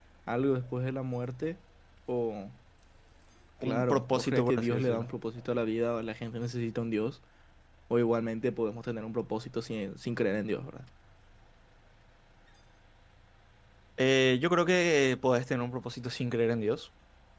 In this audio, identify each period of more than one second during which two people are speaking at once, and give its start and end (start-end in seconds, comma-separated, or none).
3.6-5.1